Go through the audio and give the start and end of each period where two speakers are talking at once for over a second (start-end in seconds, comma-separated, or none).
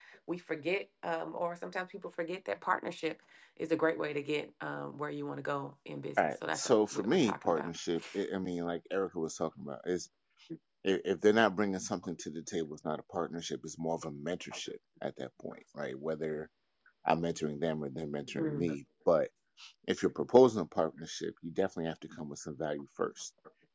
6.2-7.7